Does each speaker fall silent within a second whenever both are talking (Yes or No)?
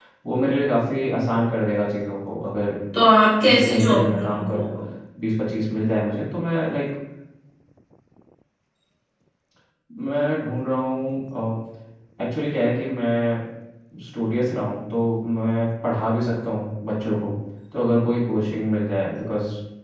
No